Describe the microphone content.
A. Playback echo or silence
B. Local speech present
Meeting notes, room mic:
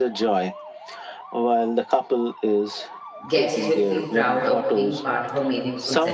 B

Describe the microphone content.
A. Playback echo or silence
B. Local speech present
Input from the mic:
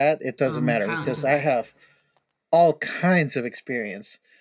B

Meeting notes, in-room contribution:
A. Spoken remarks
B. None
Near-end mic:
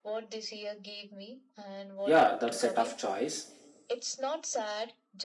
A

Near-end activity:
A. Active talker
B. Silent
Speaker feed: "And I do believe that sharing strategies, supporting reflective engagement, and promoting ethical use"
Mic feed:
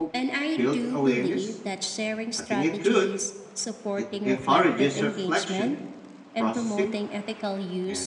A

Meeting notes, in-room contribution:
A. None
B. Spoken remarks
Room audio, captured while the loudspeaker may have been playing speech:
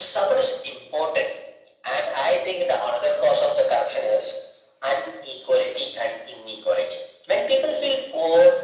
A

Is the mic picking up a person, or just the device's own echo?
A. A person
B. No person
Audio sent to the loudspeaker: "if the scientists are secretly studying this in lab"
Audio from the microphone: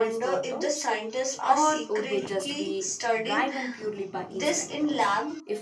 A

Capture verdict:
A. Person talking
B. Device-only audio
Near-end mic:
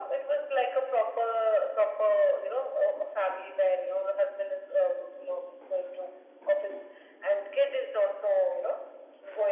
B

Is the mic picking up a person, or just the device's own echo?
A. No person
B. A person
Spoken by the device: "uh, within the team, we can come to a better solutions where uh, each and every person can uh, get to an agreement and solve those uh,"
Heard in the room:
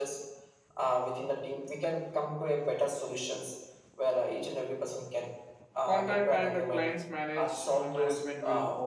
B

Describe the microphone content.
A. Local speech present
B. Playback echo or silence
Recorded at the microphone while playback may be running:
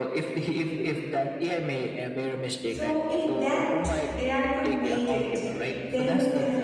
A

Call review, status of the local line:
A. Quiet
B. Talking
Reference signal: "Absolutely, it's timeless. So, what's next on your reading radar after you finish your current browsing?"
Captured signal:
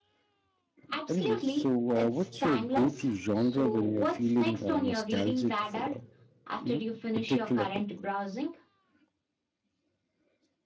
B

